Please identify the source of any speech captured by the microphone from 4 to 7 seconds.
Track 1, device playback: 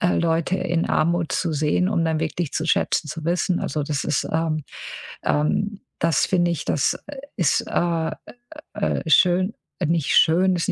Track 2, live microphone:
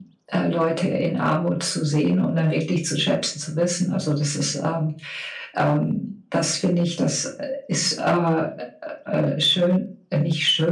echo only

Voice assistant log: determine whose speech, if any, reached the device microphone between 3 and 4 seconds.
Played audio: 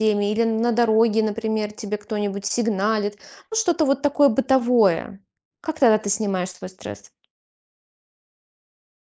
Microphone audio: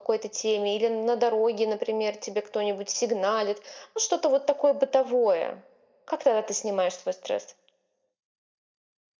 echo only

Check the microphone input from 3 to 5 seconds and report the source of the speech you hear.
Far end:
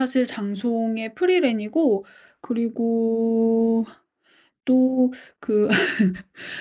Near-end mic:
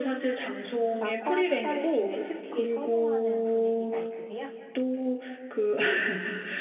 both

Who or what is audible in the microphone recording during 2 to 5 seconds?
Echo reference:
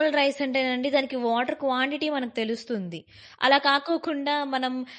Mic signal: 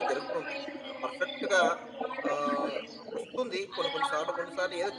both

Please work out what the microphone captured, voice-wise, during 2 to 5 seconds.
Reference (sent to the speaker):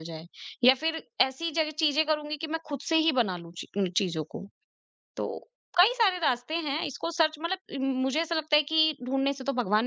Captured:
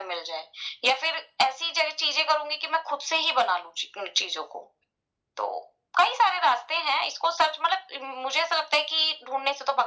echo only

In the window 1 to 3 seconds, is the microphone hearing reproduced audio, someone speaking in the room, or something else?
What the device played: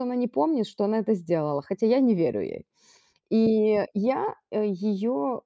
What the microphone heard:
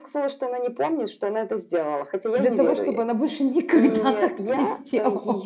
both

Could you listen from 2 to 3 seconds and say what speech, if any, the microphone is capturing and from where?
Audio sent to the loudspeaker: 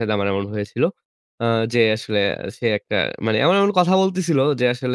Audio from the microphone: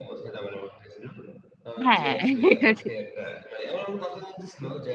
both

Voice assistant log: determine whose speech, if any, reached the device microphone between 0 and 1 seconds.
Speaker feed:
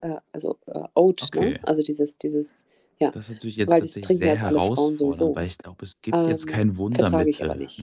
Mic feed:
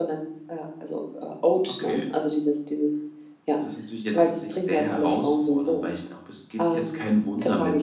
echo only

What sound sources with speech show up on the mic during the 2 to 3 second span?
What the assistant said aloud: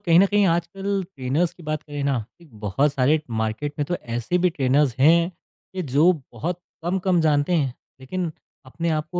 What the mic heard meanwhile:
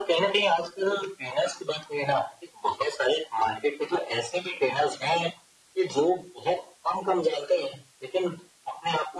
echo only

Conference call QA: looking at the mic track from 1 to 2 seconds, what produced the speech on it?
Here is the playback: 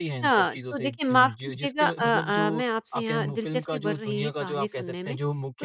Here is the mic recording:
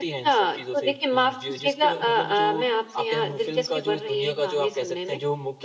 echo only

